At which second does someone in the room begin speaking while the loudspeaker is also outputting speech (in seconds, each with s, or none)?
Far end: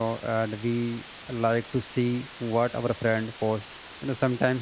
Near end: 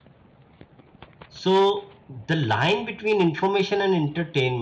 1.3 s